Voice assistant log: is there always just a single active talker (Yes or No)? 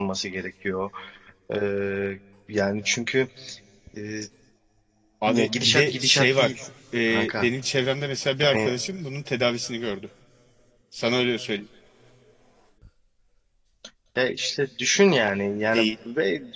No